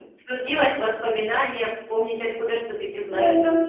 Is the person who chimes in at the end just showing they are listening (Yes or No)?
No